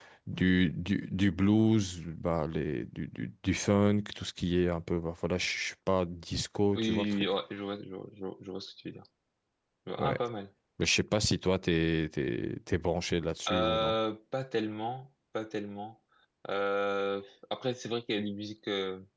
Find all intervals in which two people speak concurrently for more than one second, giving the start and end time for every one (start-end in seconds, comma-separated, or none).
none